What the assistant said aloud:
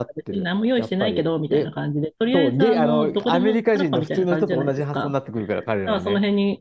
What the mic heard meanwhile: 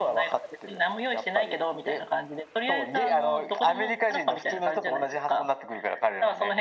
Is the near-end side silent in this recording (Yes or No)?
Yes